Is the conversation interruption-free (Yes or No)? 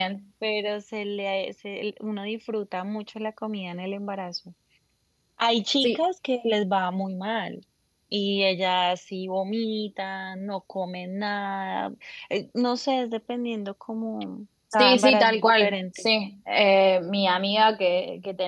No